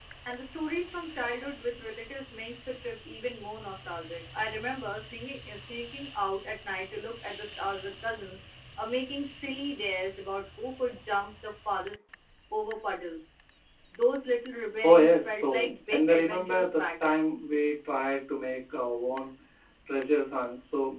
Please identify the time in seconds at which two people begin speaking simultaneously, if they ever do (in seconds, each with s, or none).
14.8 s